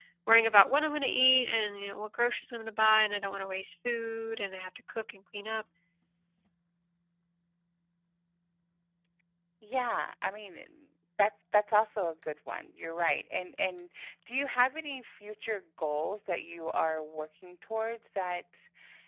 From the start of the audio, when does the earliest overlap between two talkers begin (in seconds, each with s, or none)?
none